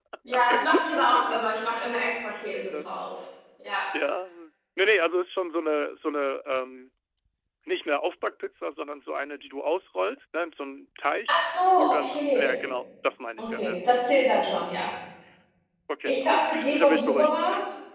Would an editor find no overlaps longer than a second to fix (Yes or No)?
No